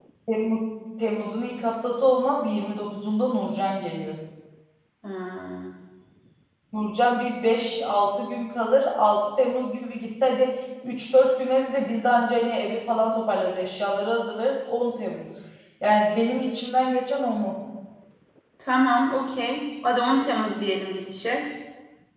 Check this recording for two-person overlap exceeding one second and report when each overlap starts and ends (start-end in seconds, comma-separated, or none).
none